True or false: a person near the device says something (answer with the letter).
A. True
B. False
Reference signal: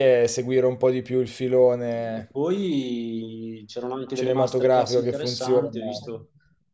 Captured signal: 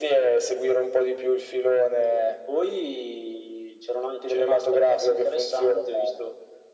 B